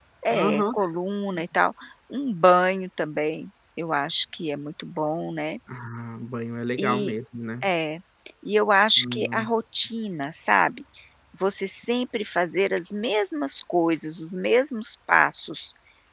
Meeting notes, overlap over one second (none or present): none